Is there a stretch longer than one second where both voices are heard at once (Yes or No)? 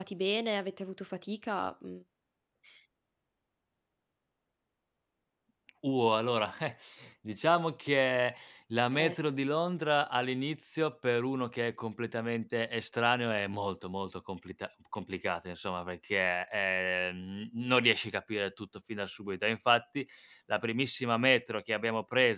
No